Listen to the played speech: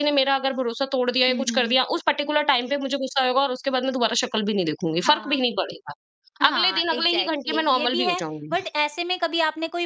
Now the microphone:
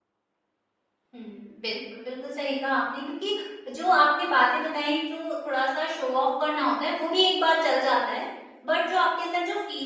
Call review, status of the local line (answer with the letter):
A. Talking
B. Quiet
A